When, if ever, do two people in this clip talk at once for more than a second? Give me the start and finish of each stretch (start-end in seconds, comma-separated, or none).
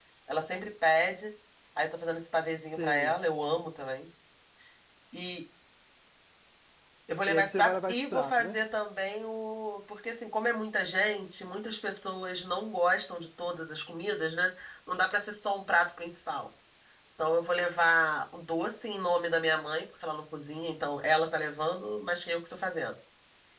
7.3-8.6